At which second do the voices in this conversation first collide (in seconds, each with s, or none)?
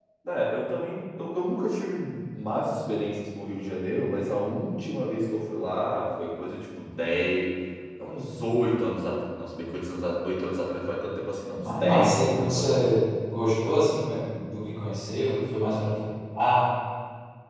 11.6 s